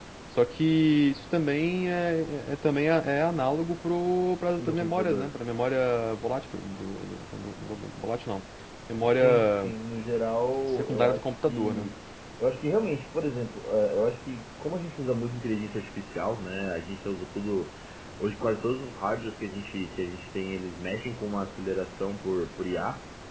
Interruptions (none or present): present